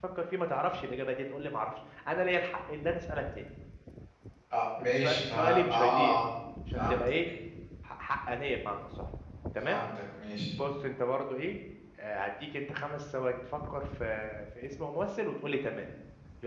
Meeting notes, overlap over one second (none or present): present